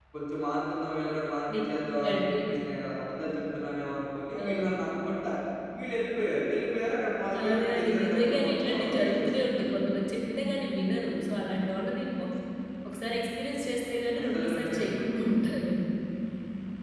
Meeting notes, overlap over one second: present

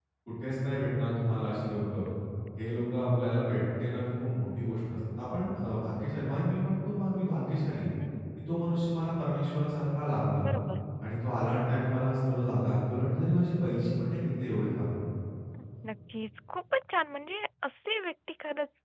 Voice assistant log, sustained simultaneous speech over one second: none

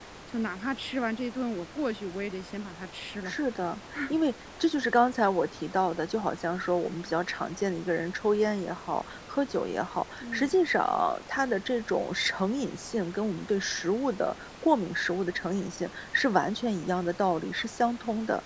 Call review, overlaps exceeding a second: none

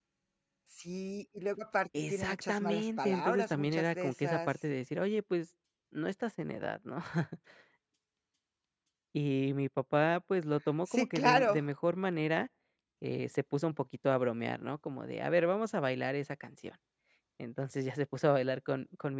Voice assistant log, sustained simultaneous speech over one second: present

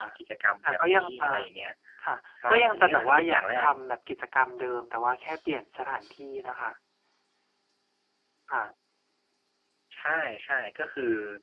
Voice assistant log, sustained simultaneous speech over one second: present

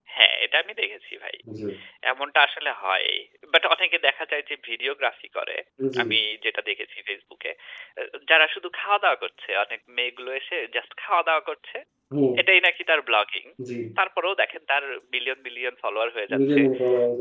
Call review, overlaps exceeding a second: none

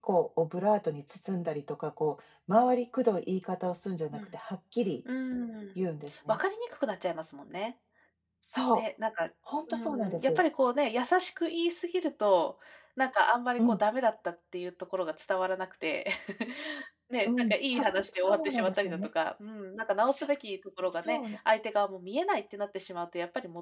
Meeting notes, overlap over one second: present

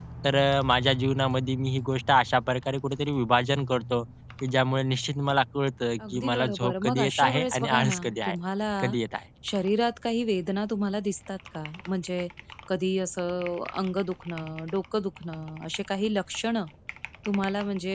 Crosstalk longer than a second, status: present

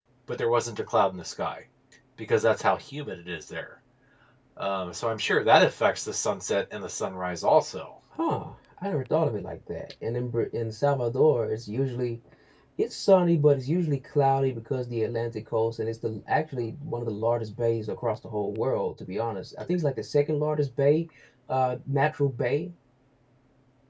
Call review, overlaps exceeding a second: none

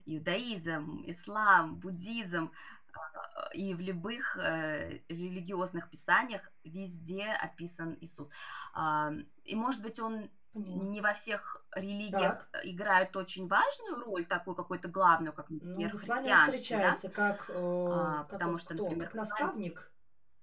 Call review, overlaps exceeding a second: present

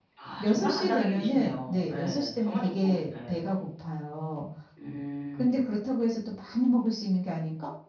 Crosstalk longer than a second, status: present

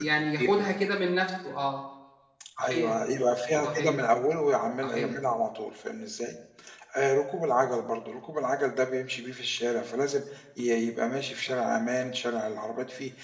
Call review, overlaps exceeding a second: none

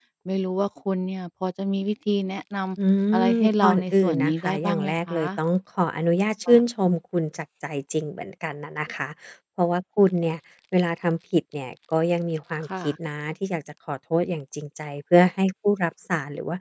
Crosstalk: present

